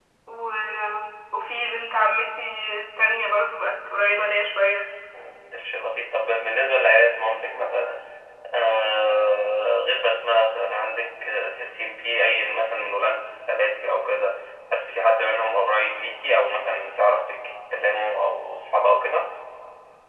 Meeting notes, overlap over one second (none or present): none